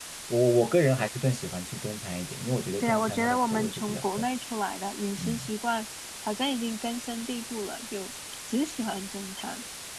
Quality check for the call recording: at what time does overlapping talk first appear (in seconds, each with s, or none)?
2.8 s